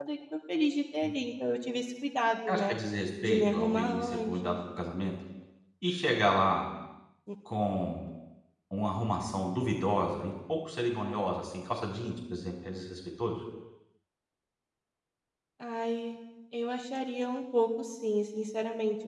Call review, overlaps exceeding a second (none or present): present